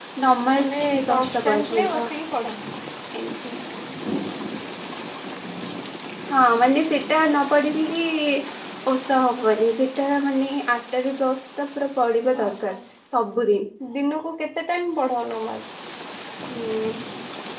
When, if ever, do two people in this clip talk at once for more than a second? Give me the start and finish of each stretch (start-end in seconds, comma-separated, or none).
0.7-2.0